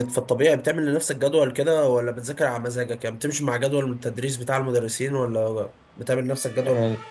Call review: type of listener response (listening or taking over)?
taking over